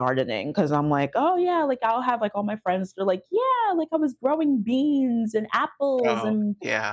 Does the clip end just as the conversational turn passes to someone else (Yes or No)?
No